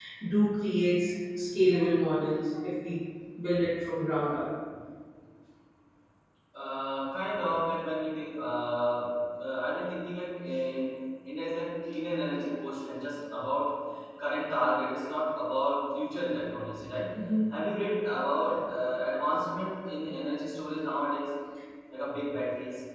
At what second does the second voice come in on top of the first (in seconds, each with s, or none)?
none